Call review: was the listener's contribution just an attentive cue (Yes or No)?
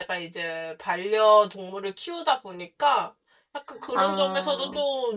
Yes